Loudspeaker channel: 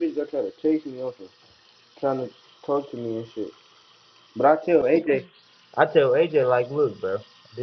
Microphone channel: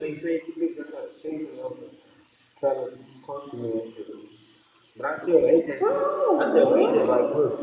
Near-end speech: present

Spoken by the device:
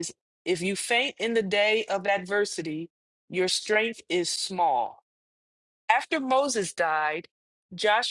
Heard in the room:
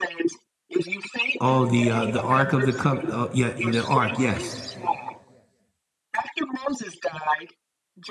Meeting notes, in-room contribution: present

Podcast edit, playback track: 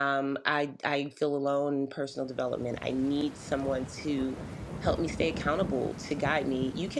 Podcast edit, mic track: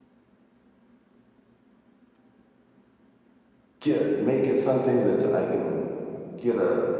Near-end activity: present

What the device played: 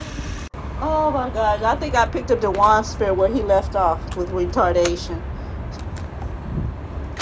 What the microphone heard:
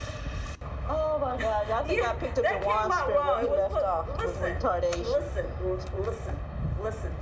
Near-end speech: present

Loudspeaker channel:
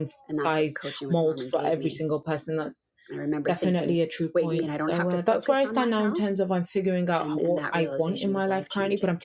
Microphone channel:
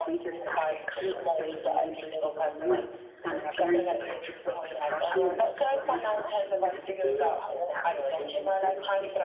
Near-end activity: present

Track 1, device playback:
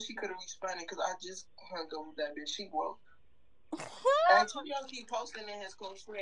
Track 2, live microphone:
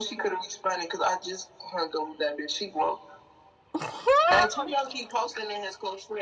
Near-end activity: none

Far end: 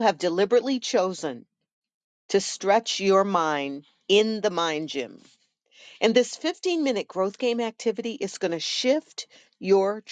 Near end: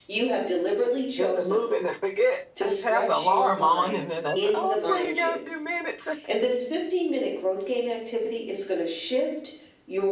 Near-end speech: present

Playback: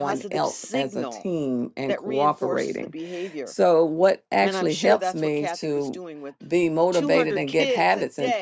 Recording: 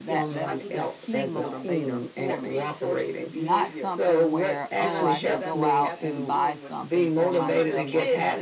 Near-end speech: present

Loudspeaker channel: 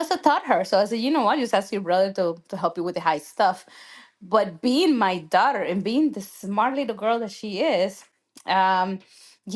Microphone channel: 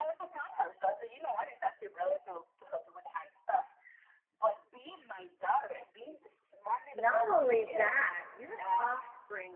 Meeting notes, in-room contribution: present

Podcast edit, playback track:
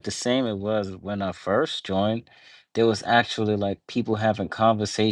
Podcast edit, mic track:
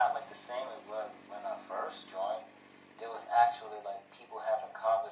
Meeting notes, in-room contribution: none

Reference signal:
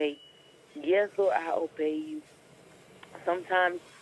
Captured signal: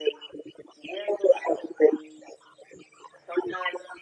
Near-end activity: none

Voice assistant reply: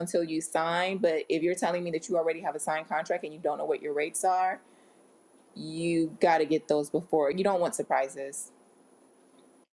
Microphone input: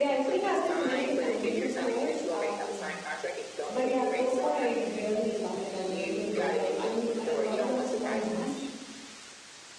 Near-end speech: present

